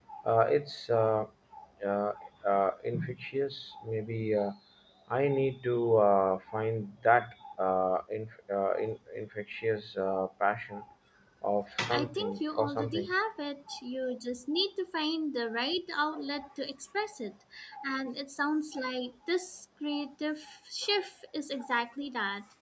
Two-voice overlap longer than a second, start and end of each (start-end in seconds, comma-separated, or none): 11.9-13.1